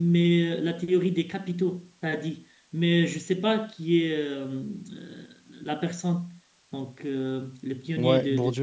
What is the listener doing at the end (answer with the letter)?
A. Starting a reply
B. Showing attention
A